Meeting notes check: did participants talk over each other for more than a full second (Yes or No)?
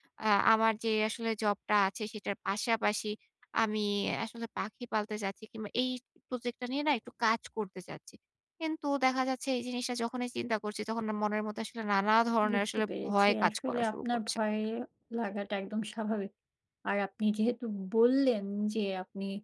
Yes